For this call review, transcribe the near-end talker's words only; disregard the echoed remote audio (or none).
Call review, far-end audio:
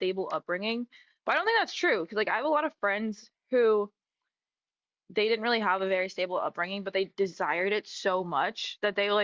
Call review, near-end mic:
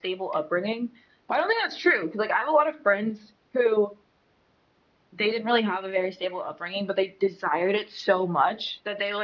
none